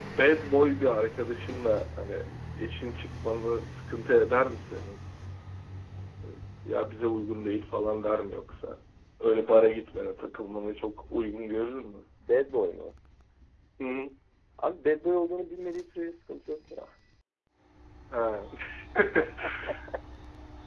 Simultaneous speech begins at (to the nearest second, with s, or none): none